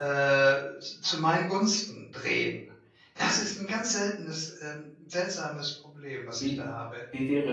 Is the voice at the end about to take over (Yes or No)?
Yes